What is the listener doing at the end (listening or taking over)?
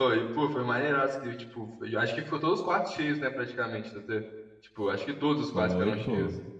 taking over